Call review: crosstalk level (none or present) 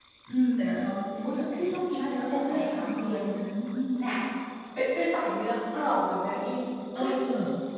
present